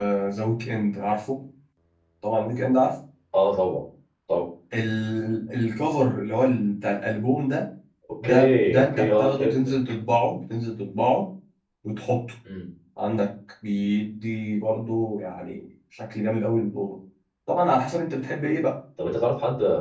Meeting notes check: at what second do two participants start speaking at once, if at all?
8.2 s

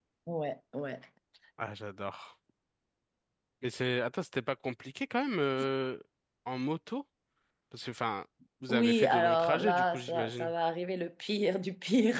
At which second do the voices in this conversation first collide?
8.6 s

